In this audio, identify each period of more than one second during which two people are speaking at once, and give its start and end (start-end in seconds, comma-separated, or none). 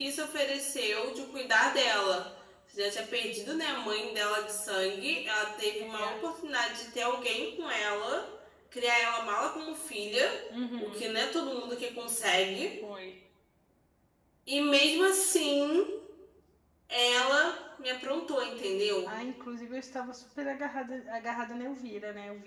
none